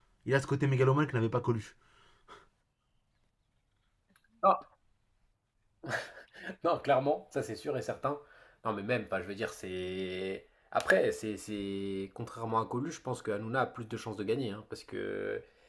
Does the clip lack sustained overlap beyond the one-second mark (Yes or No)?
Yes